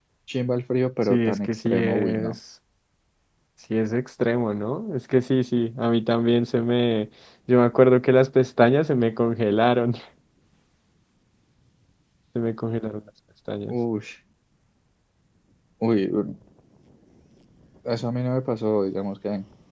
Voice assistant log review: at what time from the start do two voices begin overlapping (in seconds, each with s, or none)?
1.0 s